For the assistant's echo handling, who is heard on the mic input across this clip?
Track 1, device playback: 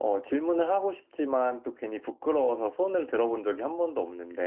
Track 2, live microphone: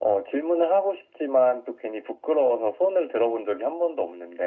echo only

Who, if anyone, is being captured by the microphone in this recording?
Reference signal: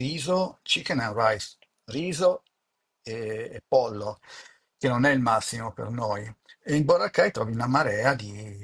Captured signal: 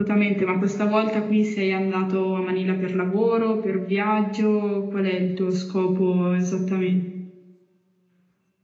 user only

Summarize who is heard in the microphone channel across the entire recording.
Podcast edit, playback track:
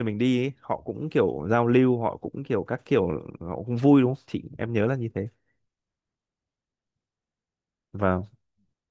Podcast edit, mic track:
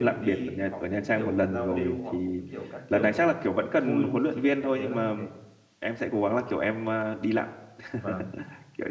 both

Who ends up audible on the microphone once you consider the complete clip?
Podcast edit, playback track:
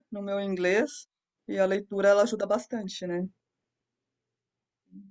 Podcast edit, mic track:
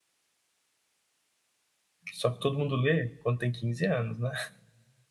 user only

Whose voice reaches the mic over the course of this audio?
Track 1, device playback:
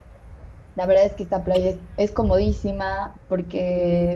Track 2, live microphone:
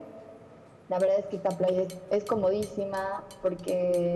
echo only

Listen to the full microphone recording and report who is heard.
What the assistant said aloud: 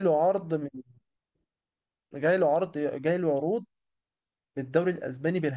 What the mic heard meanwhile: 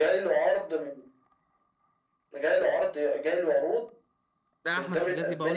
both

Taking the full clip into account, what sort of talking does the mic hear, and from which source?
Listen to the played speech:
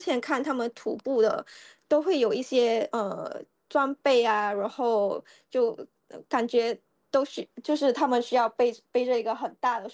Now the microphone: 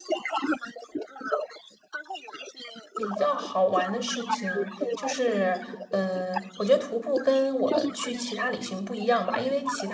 both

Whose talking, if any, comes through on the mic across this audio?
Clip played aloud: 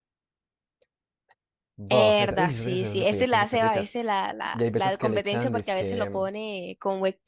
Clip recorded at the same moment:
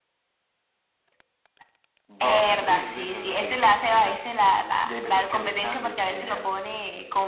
echo only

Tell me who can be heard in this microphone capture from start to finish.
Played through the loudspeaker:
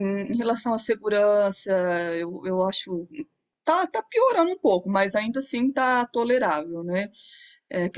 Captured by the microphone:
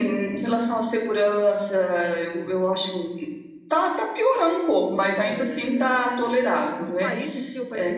both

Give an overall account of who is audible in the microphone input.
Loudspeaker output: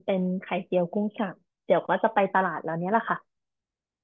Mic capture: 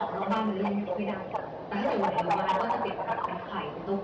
both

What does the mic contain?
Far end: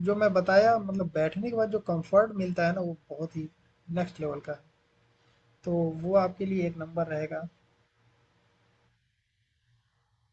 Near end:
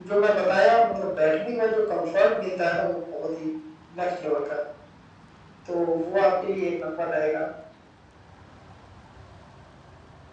echo only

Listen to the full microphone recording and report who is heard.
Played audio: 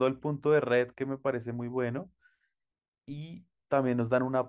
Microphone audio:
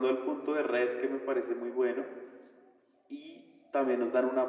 echo only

